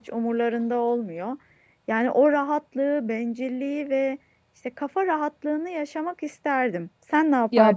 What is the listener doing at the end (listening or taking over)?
taking over